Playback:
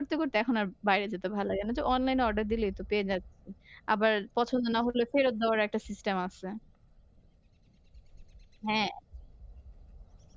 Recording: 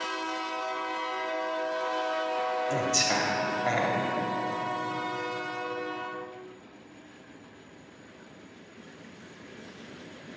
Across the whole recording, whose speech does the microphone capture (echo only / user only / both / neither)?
user only